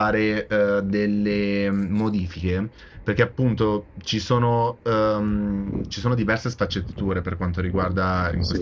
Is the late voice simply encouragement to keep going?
Yes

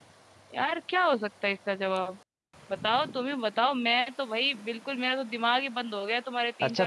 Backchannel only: No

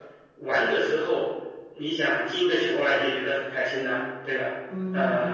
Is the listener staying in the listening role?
No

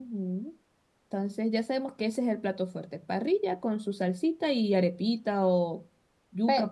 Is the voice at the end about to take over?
Yes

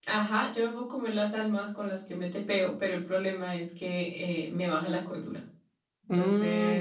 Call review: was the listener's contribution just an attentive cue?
No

